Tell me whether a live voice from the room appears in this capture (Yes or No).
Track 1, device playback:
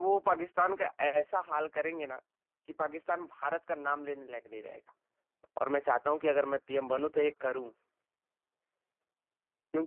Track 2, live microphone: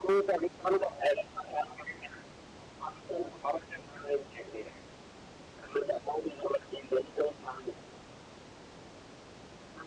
No